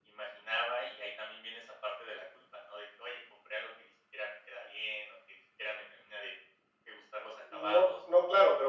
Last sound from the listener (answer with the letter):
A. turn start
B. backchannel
A